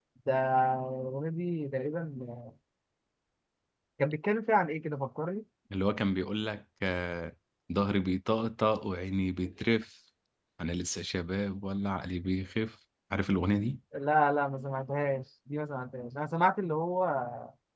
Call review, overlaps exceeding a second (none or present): none